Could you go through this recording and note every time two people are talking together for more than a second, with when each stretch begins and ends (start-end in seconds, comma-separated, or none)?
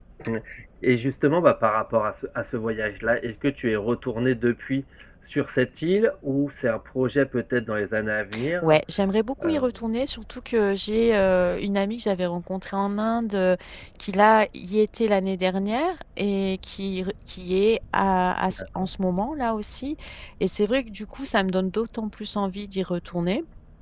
none